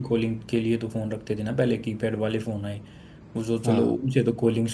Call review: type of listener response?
listening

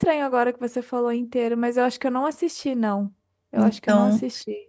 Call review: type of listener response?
taking over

